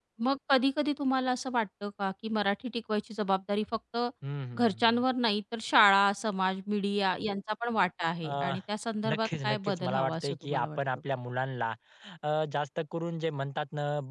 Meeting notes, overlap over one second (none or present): present